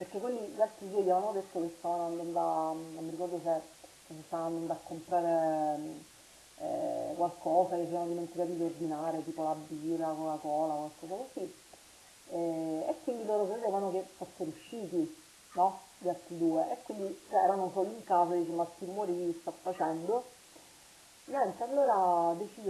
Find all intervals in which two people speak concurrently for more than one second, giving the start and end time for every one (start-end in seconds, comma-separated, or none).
none